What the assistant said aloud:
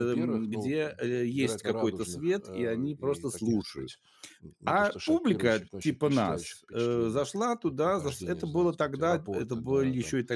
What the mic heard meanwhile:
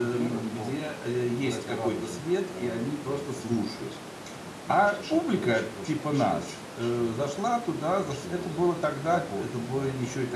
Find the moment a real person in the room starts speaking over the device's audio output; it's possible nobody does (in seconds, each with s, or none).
none